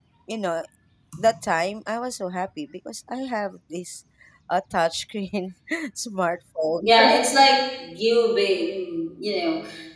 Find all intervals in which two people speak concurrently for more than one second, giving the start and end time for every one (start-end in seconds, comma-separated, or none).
none